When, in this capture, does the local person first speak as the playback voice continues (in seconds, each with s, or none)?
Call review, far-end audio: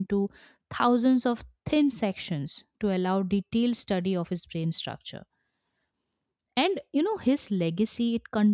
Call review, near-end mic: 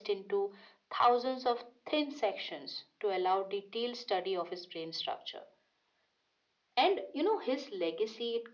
none